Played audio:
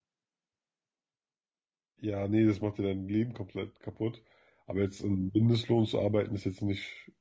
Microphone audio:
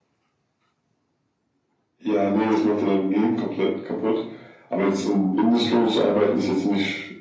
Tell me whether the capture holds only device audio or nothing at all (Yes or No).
Yes